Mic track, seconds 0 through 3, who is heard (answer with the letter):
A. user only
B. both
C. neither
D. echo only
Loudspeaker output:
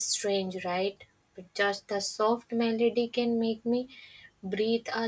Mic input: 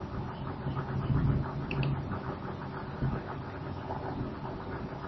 C